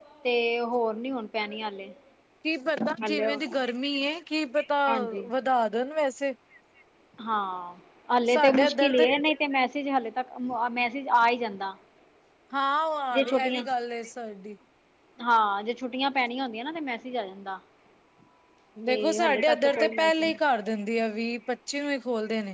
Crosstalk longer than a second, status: present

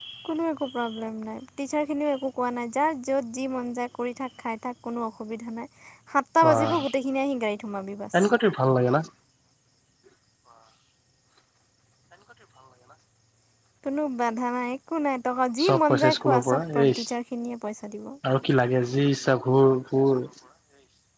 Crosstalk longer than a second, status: present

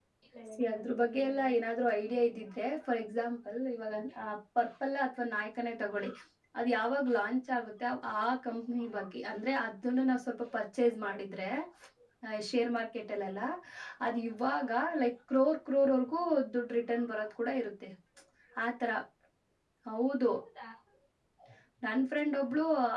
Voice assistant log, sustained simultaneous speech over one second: present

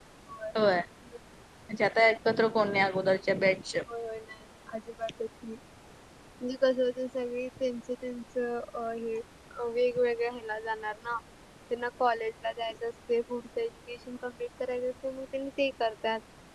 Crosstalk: none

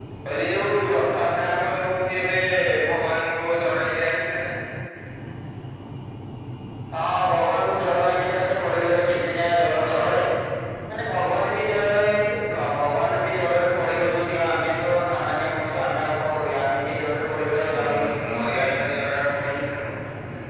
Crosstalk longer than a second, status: none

